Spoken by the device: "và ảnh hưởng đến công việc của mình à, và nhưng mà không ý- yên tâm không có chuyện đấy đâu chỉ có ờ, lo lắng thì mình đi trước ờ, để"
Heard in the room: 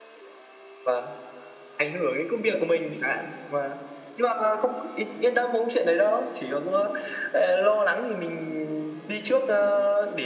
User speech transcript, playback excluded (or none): none